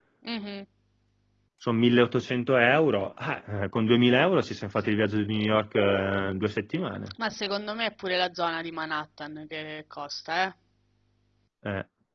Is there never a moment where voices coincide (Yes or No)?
Yes